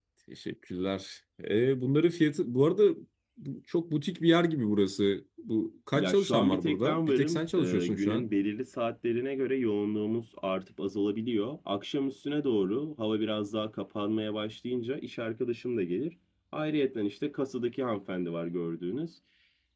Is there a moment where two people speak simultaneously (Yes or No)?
Yes